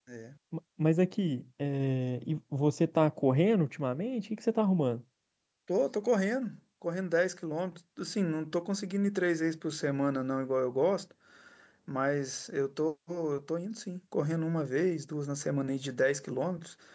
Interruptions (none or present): none